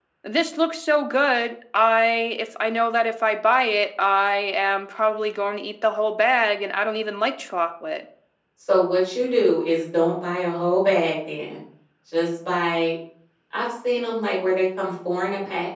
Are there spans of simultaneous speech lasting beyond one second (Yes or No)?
No